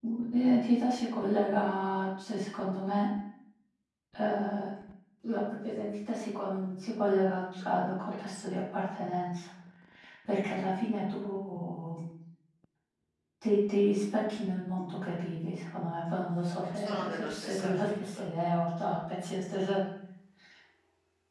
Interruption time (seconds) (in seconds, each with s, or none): 16.7 s